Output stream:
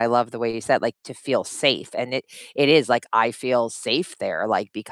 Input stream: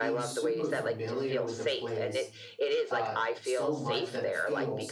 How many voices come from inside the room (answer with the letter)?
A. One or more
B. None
A